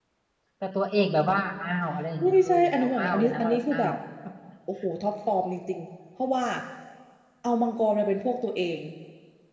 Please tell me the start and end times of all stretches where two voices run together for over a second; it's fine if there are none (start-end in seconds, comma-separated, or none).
2.2-3.9